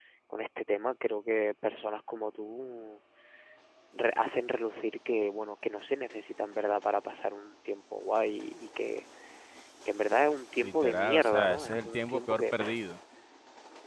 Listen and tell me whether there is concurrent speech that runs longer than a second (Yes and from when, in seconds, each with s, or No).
Yes, from 10.6 s